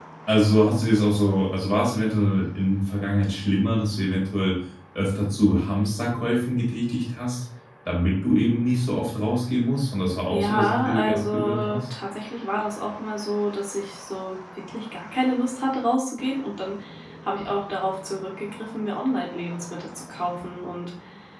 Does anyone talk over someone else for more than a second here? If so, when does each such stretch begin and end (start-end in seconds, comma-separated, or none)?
10.3-11.8